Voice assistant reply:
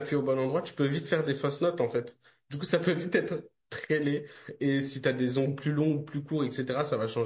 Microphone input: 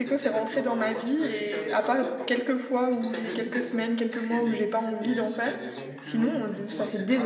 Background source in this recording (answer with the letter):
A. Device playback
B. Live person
A